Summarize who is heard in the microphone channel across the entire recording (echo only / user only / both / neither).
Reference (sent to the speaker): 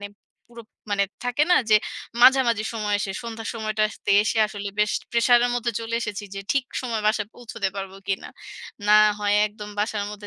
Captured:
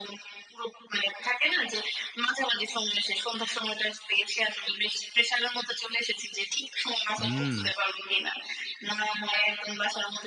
both